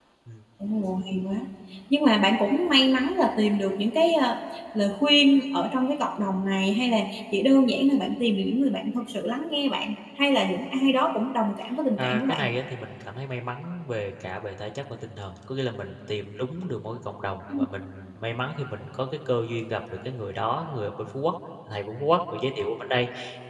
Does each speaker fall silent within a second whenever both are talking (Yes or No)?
Yes